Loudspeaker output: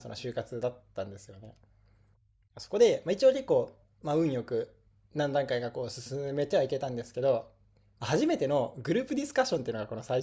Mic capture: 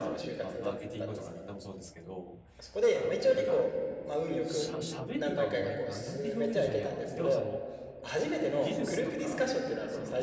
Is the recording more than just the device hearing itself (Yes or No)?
Yes